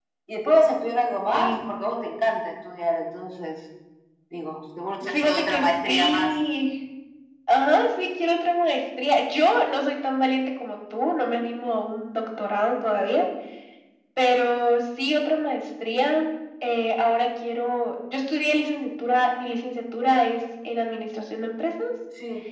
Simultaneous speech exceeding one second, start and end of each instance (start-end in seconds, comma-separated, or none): 5.1-6.3